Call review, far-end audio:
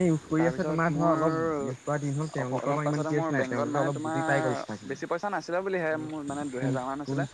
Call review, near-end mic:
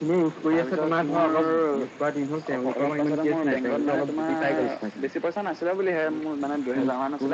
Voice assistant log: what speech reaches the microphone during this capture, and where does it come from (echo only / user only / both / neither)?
echo only